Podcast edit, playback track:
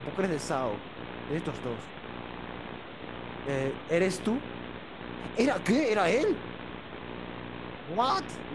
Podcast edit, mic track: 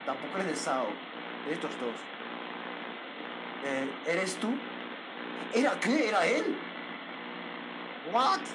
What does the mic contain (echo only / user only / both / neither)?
echo only